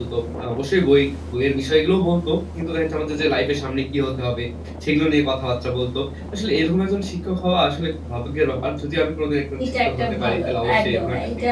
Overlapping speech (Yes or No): Yes